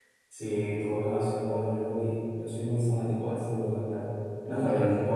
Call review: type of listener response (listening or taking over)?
listening